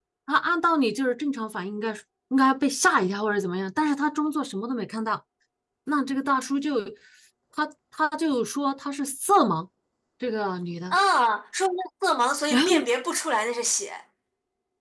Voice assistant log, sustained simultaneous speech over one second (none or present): none